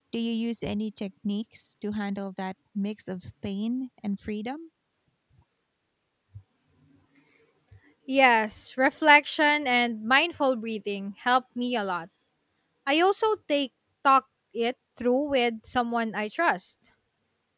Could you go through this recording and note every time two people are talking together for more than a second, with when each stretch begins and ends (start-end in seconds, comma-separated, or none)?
none